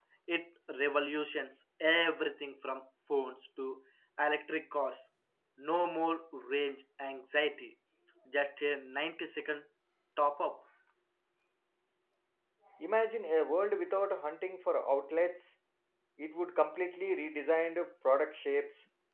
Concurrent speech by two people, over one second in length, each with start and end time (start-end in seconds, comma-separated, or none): none